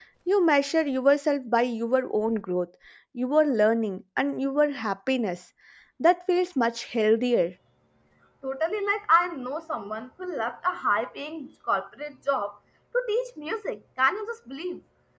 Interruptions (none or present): none